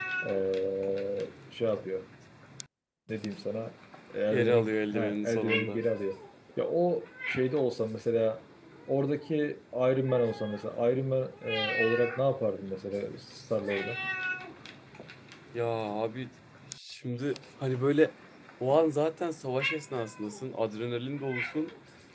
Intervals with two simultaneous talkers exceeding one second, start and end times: 4.3-5.8

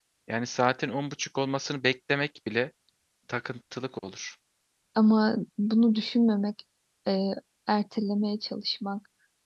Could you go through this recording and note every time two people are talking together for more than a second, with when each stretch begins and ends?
none

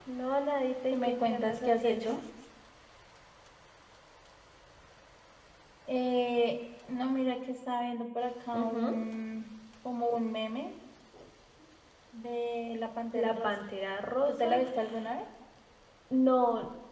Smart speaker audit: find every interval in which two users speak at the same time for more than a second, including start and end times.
0.9-2.2

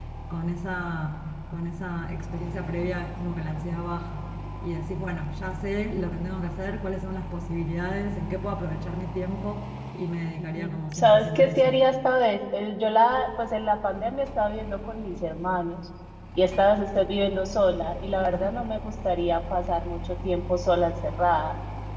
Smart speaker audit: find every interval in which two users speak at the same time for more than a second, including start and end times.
10.4-11.8

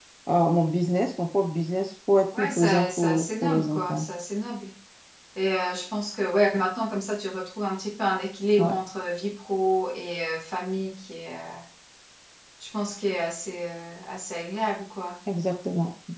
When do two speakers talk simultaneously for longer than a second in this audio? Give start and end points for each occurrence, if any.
2.4-4.1

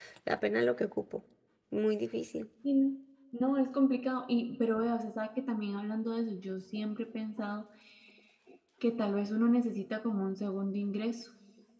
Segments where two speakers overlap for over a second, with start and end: none

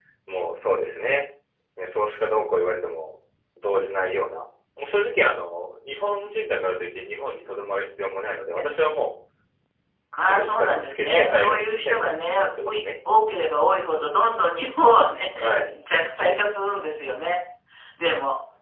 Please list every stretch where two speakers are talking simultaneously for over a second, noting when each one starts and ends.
10.2-12.8

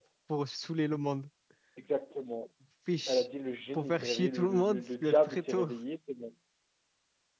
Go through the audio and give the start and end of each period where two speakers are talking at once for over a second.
3.7-5.7

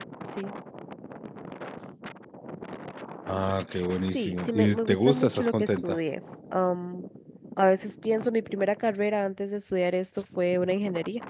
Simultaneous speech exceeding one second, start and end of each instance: 4.1-6.0

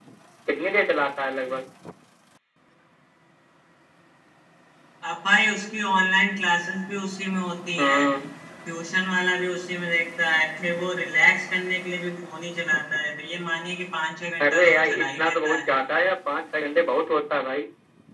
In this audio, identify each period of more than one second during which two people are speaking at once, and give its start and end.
14.4-15.6

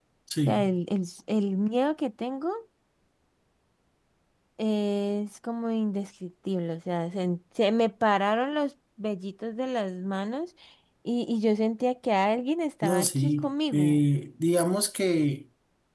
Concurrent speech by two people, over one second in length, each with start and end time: 12.8-14.1

